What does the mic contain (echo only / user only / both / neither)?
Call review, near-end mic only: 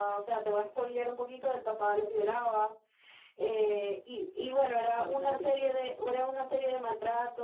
both